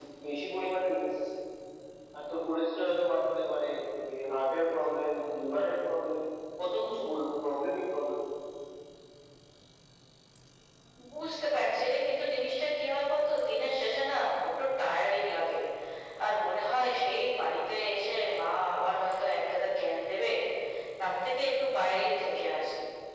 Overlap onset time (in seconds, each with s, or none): none